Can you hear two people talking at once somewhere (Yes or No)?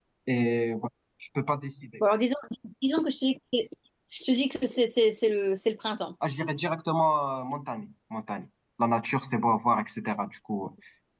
No